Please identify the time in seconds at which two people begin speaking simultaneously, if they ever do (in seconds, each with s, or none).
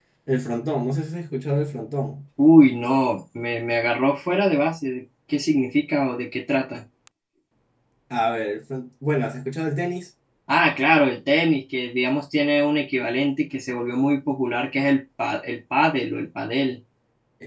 none